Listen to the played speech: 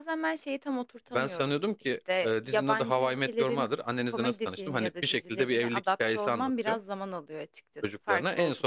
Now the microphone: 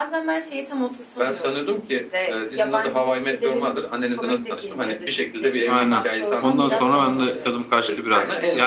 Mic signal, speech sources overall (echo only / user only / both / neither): both